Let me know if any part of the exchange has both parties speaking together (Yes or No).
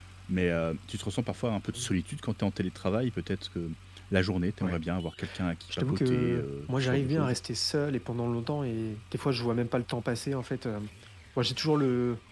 Yes